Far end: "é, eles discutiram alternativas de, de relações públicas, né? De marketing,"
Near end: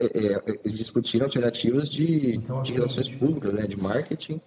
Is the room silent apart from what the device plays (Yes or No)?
No